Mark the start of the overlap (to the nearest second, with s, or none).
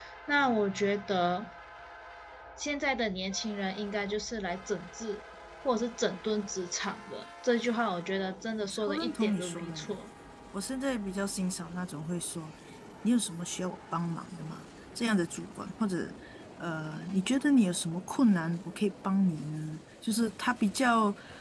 9 s